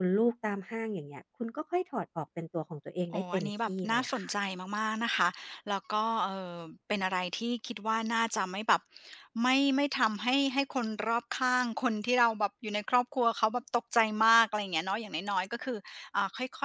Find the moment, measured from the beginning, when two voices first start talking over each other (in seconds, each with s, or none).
3.1 s